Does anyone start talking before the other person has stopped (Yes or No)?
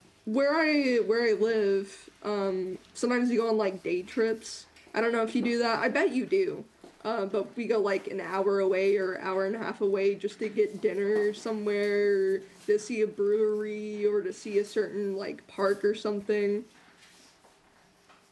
No